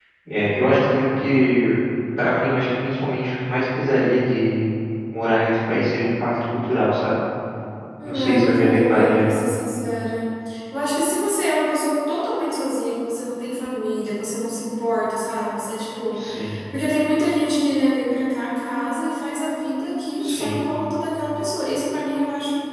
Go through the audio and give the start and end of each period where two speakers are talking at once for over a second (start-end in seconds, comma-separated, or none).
8.0-9.3